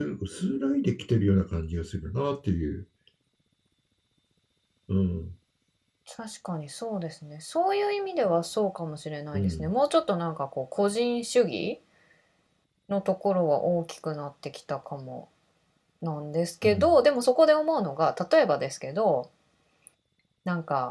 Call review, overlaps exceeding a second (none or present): none